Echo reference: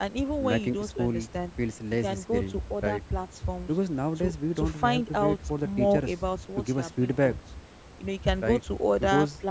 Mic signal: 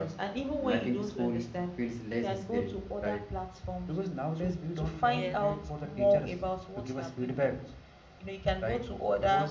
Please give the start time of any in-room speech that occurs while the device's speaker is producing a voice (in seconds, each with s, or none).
5.1 s